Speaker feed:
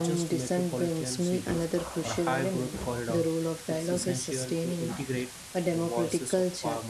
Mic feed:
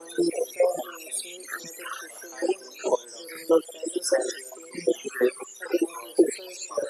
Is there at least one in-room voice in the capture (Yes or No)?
No